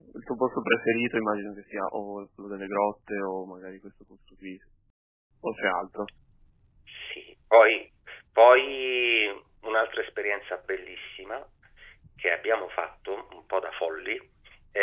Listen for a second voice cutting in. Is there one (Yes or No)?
No